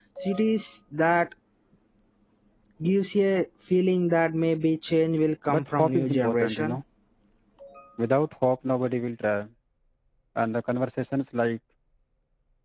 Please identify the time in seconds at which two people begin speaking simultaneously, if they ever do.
5.5 s

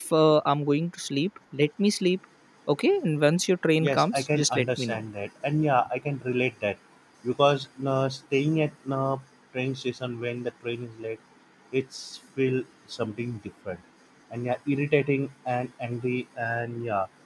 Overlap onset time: 3.8 s

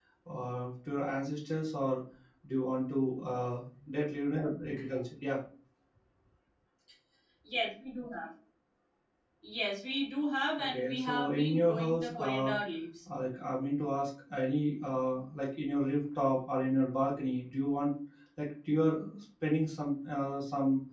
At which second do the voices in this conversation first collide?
10.6 s

